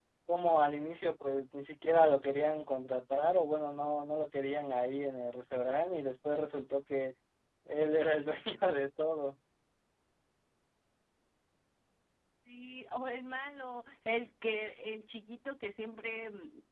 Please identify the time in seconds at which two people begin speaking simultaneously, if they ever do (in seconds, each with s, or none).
none